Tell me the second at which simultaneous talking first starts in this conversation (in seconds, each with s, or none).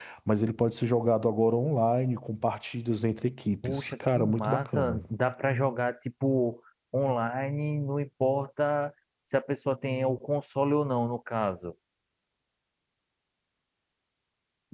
3.6 s